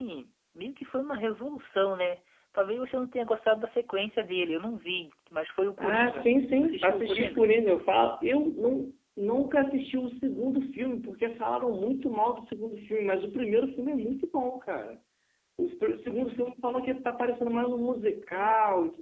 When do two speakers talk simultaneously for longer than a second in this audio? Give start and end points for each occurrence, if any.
5.8-7.5

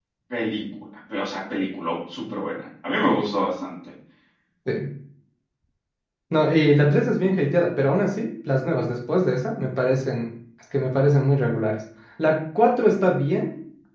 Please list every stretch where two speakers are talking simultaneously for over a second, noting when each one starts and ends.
none

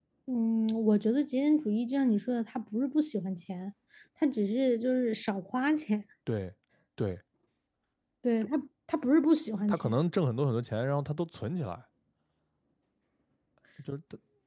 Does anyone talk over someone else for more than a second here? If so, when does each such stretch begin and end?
none

